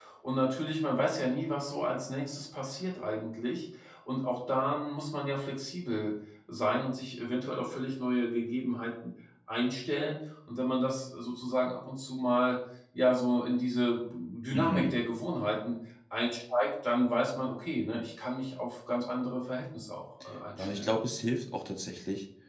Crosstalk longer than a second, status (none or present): none